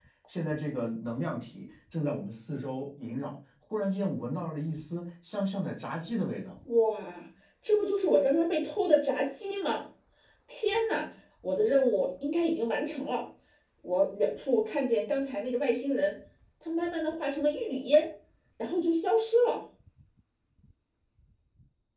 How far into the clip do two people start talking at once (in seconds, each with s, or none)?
none